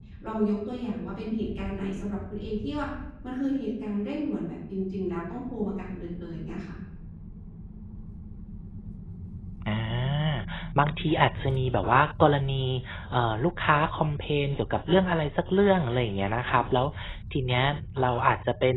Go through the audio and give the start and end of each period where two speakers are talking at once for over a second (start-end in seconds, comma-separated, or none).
none